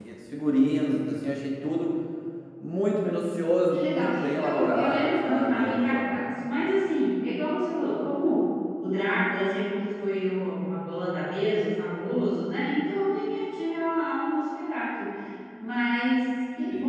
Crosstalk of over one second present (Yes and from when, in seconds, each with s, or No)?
Yes, from 3.7 s